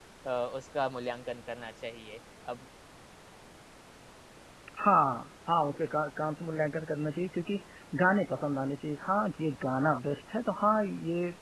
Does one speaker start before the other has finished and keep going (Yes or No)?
No